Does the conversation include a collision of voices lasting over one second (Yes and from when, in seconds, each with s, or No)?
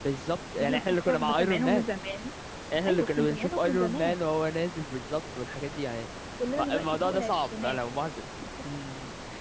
Yes, from 0.6 s